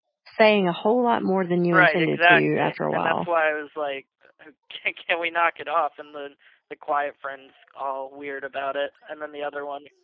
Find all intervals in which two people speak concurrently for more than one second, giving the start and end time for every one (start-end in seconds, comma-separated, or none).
1.7-3.3